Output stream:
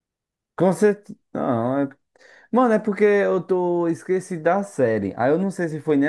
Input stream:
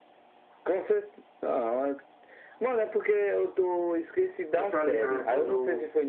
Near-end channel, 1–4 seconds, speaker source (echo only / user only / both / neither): echo only